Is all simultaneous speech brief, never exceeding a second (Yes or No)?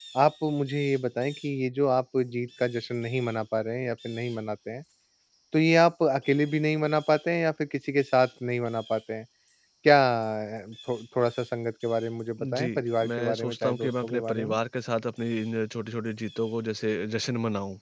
No